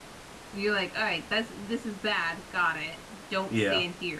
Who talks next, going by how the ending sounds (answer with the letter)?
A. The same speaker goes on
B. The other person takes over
A